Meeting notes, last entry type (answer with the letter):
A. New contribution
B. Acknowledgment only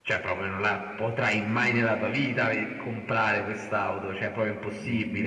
A